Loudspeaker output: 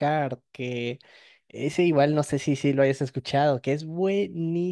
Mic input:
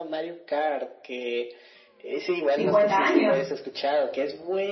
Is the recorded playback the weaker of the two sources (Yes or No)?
Yes